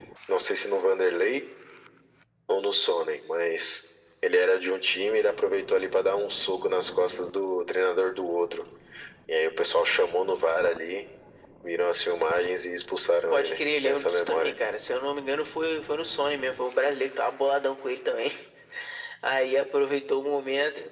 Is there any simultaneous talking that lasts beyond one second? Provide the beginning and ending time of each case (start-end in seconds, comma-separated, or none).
13.3-14.5